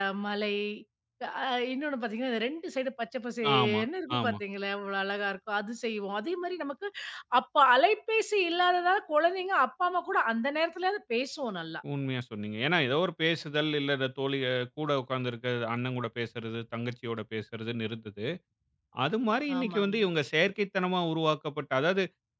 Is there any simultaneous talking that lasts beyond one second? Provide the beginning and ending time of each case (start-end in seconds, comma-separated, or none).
none